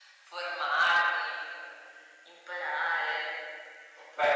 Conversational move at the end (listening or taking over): listening